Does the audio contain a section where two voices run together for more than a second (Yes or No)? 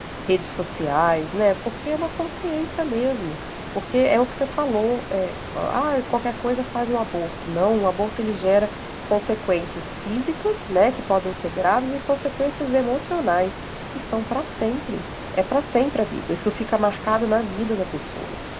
No